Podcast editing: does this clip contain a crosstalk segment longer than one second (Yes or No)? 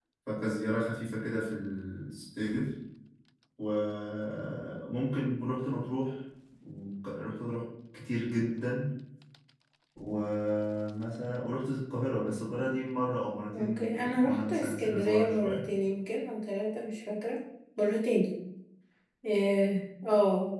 Yes